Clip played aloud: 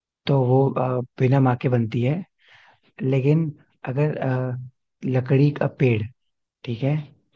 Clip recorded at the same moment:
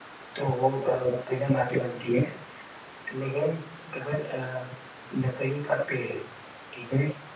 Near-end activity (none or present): none